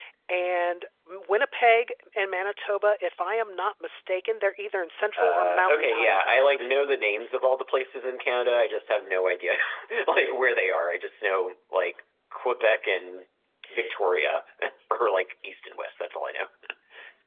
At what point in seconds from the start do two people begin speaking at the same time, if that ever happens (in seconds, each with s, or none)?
5.2 s